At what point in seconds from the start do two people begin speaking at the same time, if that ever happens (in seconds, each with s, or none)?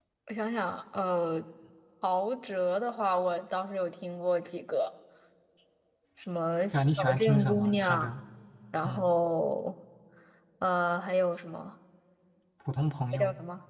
6.7 s